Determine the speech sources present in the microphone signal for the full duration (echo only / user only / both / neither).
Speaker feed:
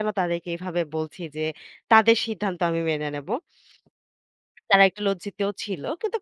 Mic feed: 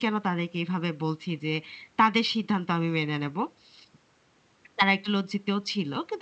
echo only